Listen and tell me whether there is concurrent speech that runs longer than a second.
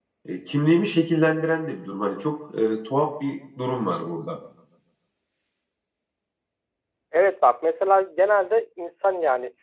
No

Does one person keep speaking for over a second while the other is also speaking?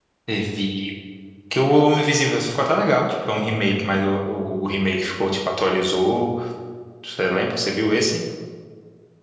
No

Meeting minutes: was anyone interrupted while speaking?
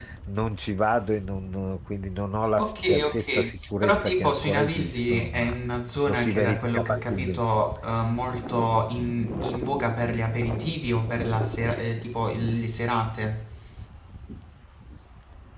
Yes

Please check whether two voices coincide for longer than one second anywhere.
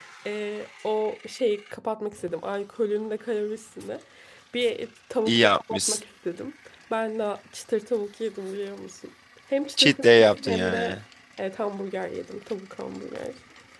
Yes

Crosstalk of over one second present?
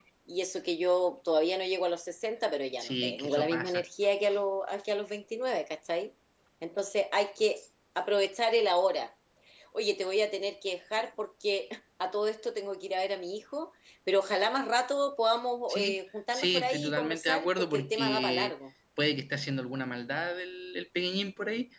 Yes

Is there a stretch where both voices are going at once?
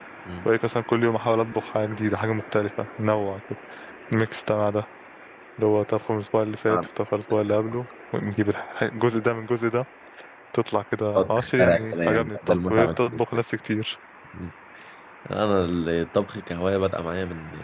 Yes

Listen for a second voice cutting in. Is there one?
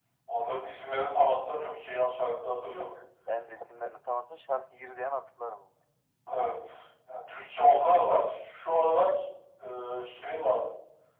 No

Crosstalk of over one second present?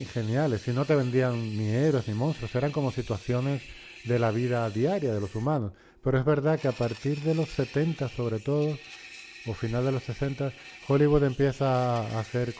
No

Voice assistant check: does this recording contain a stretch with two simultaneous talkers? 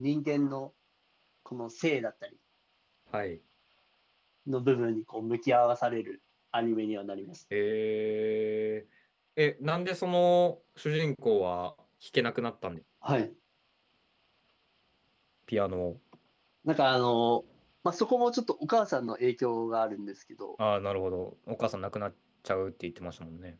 No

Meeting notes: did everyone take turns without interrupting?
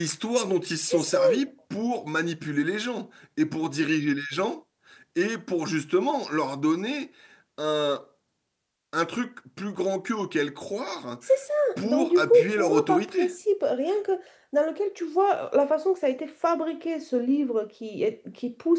No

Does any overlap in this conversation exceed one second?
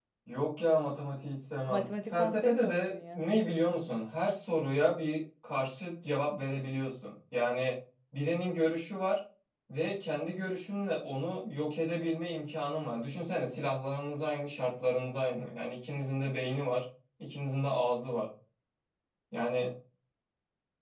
Yes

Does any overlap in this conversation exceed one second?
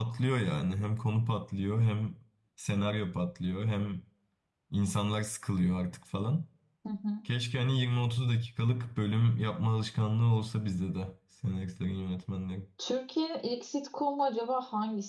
No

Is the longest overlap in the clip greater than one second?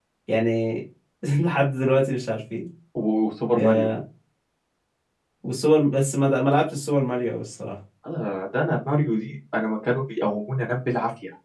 No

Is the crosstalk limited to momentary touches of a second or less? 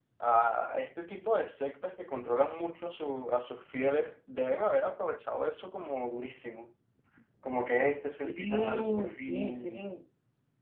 No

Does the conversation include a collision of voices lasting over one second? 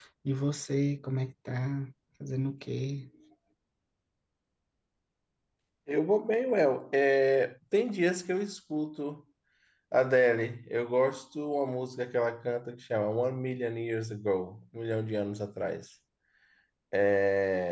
No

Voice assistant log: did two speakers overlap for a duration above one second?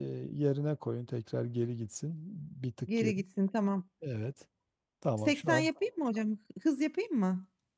No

